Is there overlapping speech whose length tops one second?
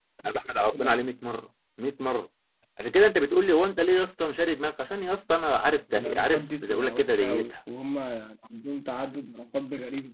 Yes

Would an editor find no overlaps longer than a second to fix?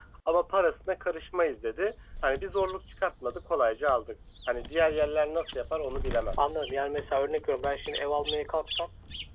Yes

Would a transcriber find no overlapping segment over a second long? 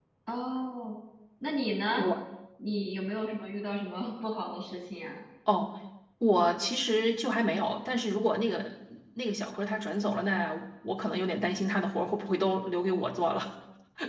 Yes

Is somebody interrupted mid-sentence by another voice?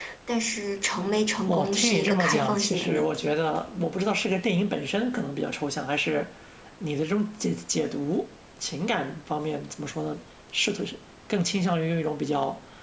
Yes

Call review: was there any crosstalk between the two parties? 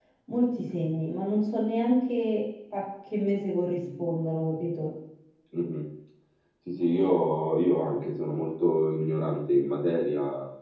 No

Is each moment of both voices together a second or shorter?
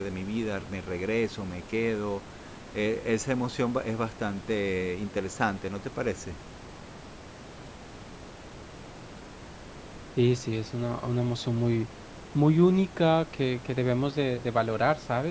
Yes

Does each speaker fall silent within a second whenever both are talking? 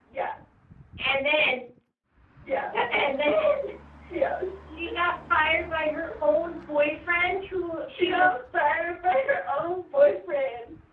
Yes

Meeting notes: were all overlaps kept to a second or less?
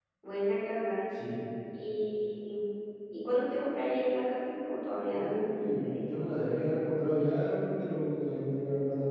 Yes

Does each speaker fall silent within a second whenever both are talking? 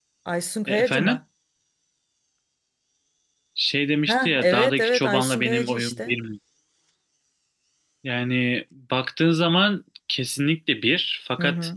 No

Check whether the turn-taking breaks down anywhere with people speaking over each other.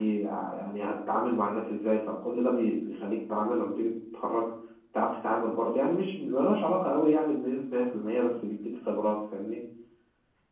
No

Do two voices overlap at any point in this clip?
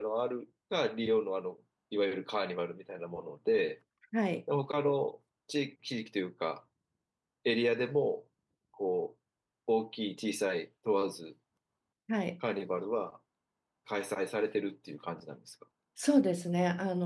No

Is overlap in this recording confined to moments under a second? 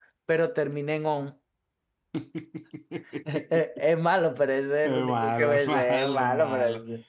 No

